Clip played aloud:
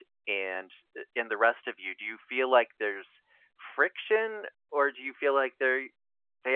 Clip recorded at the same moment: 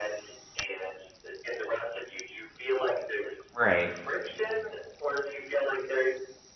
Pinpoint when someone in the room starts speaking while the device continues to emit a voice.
3.5 s

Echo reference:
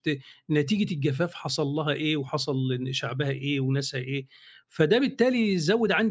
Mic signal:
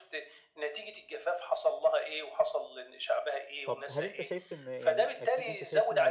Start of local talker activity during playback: 3.6 s

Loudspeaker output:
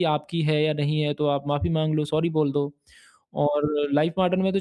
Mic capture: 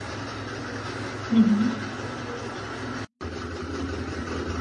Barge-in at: 1.3 s

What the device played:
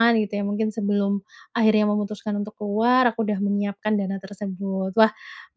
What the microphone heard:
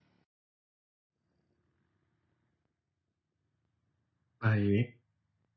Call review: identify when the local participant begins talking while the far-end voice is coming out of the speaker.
4.4 s

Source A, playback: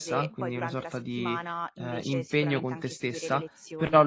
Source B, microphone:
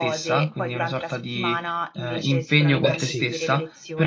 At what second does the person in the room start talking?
2.8 s

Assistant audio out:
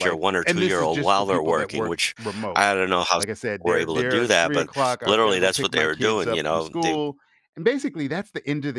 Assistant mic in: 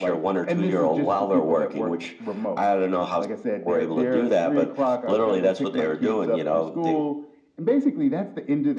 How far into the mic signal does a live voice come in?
none

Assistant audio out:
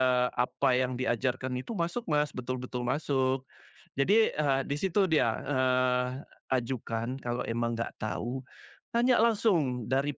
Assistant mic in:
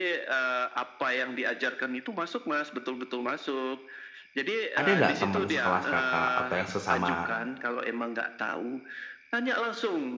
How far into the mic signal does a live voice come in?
4.8 s

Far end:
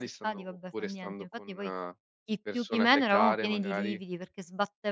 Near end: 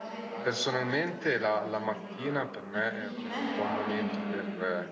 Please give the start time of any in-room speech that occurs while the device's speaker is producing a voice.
0.4 s

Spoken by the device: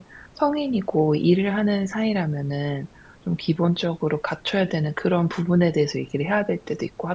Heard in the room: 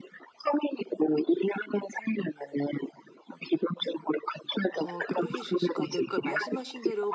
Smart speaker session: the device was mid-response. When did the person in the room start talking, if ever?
4.7 s

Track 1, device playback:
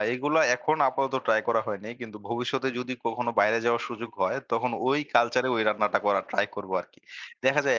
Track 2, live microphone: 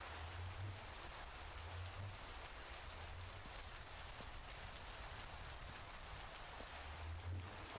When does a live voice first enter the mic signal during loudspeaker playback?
none

